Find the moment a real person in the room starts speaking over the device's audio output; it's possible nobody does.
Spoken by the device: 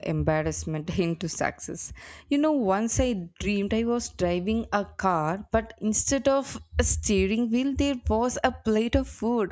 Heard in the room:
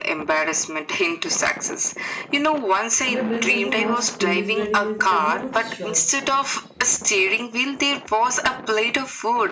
3.1 s

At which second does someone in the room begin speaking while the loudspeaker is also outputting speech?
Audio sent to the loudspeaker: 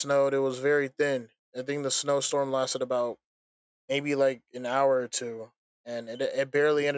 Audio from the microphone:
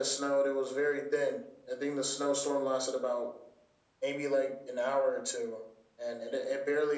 none

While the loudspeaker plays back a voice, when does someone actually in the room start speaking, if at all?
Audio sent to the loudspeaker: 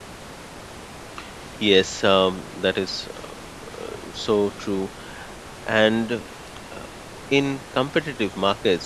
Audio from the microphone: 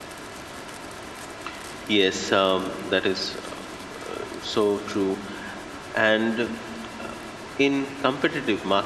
none

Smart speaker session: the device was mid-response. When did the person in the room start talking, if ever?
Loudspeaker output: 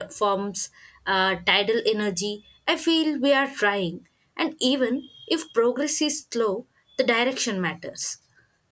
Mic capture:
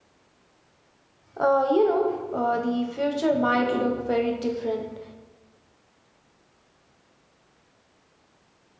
1.4 s

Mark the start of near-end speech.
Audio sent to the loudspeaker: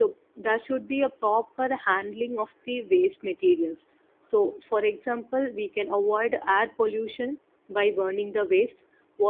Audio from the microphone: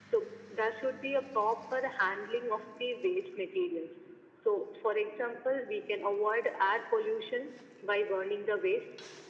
none

